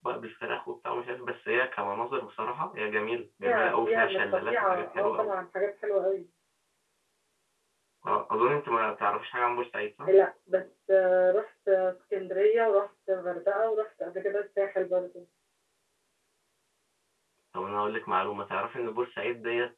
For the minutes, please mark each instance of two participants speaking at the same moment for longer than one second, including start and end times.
3.4-5.3

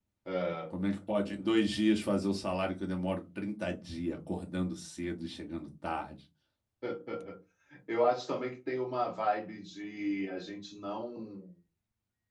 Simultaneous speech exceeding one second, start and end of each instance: none

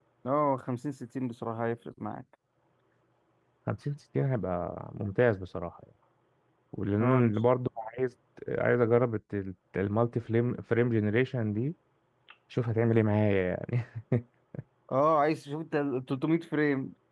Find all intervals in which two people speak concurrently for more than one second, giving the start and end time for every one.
none

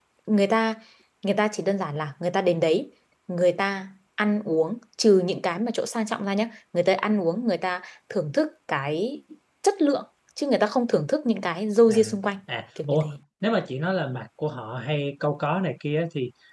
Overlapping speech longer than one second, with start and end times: none

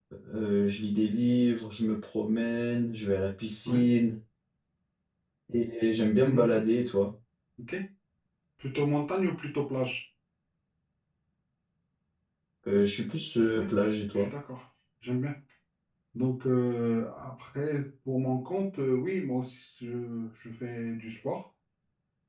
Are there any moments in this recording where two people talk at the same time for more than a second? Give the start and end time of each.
none

